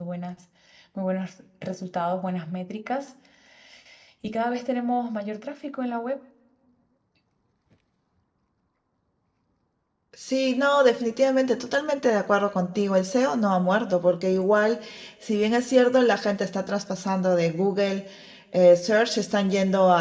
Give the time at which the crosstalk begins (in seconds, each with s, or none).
none